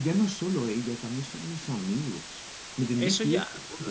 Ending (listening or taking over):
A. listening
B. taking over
B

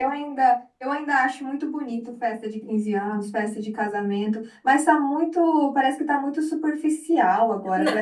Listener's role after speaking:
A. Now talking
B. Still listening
B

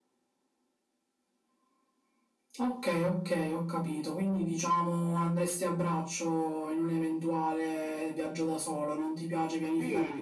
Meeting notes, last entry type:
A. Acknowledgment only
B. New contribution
B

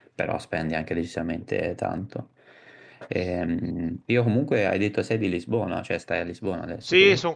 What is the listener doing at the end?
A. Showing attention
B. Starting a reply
B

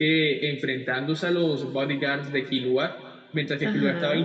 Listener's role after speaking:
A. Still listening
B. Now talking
A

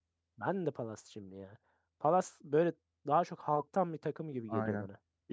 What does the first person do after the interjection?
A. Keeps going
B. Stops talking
B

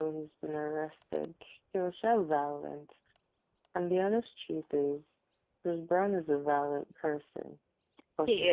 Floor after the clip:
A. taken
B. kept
B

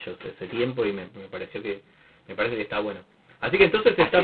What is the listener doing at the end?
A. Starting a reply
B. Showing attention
B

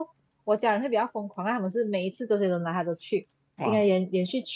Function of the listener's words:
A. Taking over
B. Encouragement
B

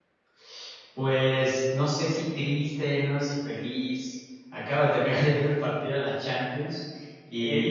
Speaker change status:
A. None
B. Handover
B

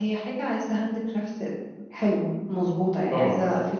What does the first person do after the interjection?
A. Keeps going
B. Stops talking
A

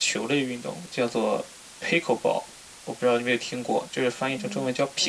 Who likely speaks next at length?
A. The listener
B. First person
A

